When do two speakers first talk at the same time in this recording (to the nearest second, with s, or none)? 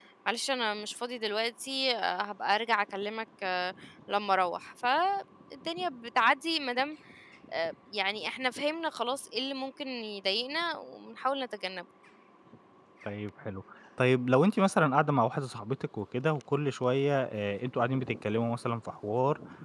none